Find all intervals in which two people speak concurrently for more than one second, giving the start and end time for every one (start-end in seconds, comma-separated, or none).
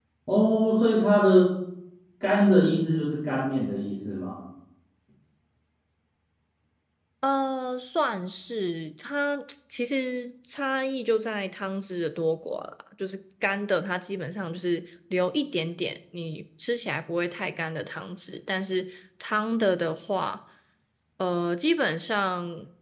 none